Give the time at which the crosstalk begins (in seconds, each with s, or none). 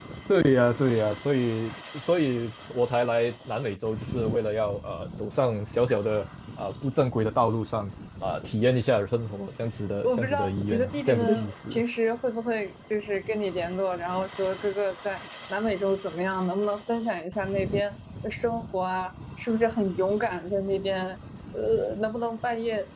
10.0 s